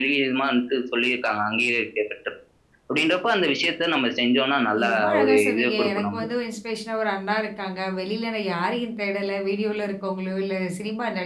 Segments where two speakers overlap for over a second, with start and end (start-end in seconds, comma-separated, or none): 4.7-6.3